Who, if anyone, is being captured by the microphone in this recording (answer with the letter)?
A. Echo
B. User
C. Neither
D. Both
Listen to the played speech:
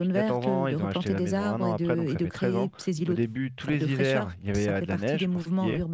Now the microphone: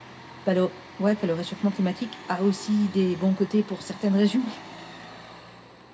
B